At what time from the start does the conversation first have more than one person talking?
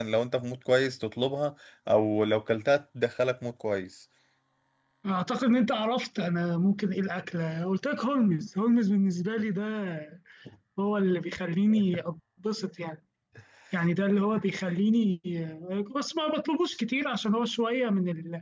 none

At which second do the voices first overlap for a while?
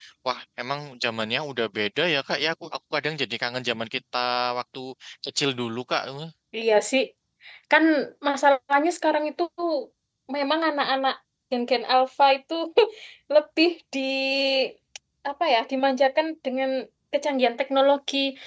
none

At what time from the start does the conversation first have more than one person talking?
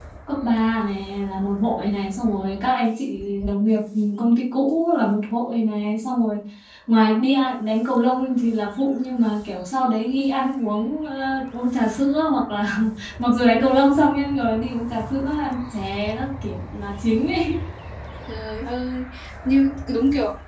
none

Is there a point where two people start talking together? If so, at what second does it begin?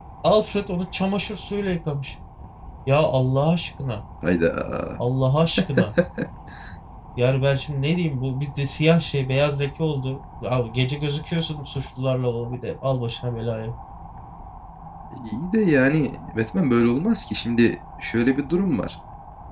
none

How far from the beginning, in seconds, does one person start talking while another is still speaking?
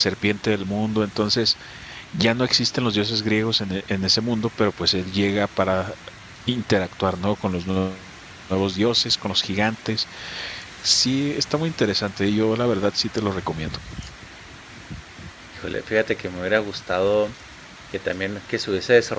none

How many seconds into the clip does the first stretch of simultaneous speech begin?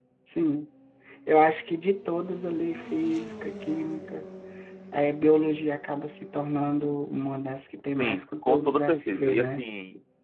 8.0 s

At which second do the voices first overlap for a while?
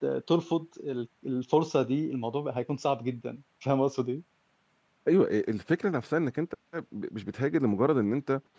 none

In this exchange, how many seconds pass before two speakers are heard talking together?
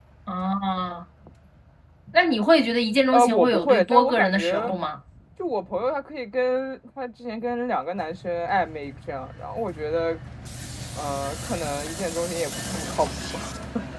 3.1 s

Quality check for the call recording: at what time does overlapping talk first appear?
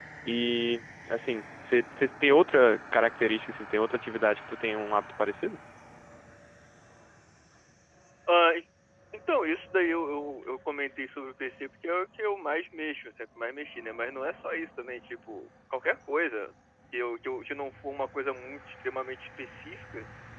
none

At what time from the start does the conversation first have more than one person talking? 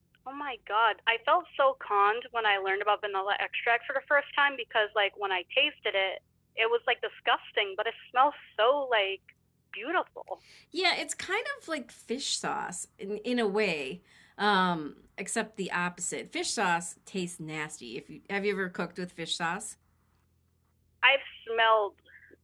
none

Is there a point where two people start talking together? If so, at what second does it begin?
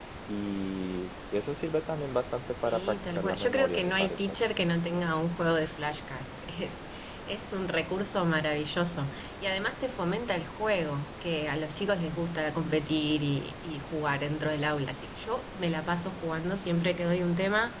2.6 s

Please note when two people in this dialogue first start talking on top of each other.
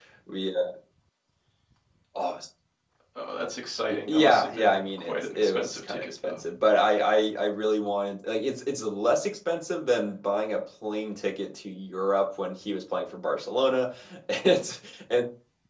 3.9 s

